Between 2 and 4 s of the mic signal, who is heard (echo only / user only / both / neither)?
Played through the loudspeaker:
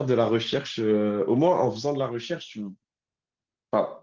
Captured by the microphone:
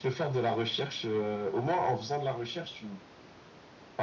echo only